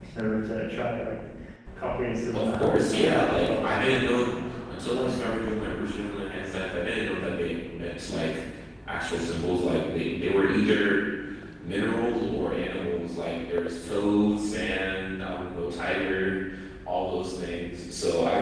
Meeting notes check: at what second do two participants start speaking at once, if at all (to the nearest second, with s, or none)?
2 s